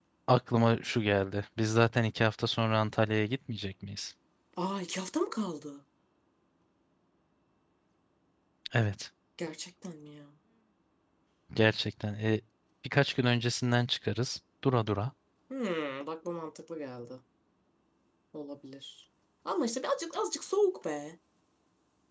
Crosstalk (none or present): none